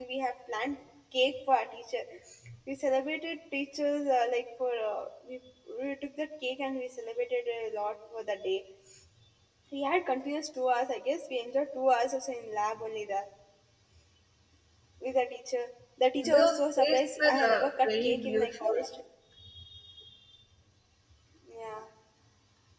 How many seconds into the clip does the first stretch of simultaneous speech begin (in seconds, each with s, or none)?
16.2 s